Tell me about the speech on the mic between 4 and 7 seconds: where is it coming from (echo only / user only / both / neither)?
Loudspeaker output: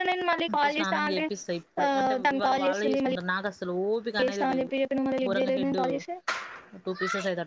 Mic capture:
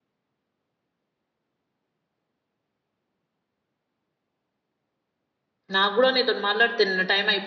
user only